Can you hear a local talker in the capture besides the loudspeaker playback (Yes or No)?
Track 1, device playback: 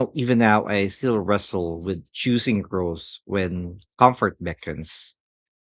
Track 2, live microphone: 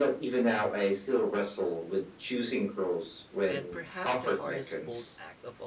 Yes